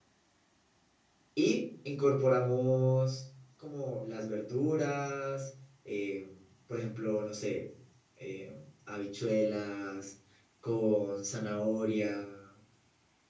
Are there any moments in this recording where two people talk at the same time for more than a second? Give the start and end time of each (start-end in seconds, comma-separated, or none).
none